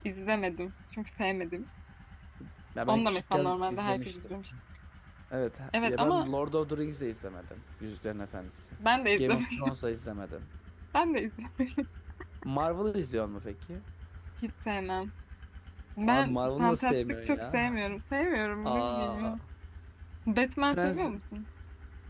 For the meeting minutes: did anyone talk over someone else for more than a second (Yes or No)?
Yes